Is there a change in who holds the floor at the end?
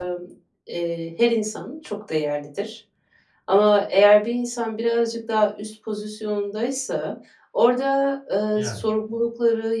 No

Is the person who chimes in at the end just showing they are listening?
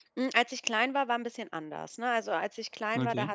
Yes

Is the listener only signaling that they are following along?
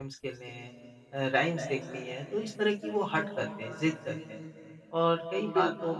Yes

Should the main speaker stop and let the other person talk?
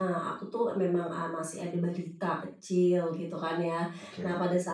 No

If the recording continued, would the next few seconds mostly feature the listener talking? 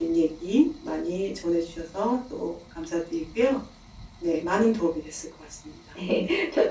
Yes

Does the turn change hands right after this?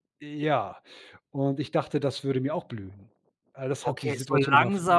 Yes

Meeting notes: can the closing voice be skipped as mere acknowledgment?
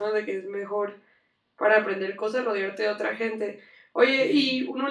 Yes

